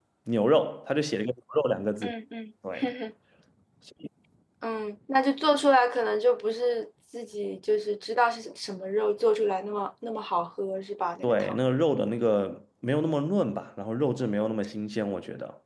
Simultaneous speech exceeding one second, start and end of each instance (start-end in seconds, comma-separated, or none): none